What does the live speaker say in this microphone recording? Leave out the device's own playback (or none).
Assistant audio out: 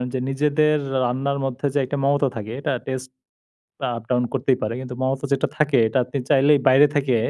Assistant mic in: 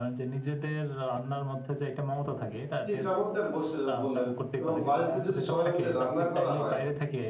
জ্বি, চমৎকার বসে বললেন এবং বাড়িতে যদি সবাই মিলে রান্না করা হয়?